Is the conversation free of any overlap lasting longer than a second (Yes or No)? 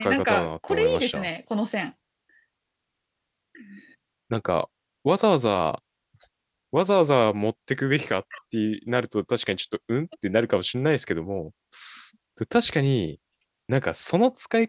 No